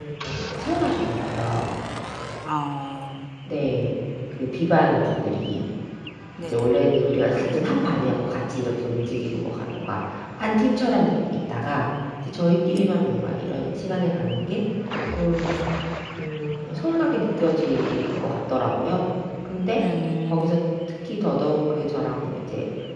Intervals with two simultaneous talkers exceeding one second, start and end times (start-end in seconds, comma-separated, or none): none